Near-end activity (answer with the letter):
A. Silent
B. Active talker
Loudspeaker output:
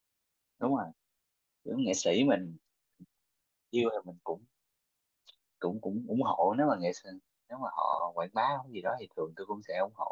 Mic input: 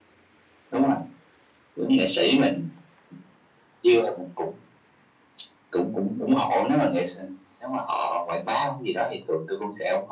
A